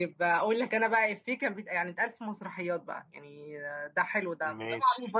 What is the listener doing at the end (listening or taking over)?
listening